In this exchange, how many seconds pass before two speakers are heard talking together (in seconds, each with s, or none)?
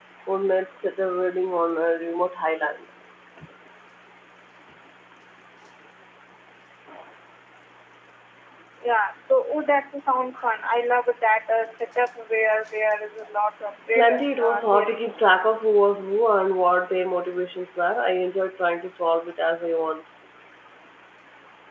13.9 s